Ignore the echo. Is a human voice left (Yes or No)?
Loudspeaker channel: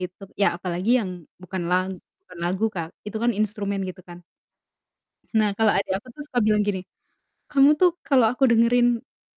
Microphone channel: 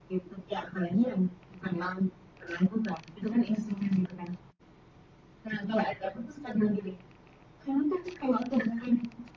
No